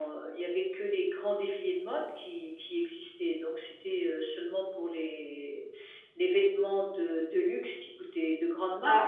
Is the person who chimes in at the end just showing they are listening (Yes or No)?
Yes